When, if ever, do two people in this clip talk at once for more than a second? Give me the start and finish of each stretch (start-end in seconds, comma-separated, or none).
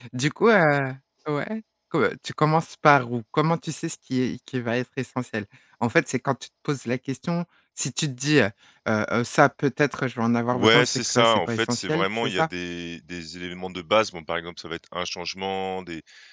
10.5-12.5